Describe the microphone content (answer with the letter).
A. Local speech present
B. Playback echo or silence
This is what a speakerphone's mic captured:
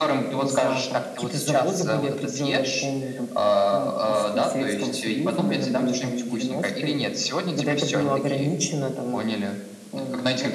B